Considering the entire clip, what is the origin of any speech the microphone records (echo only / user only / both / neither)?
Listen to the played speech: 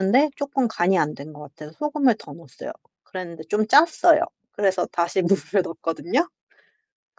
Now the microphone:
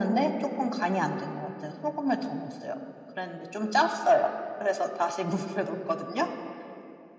echo only